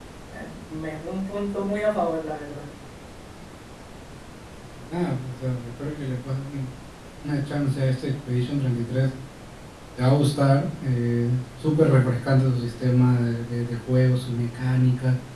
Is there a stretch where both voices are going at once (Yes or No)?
No